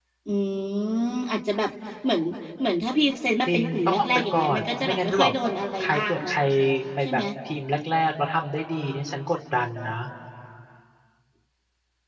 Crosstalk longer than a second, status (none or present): present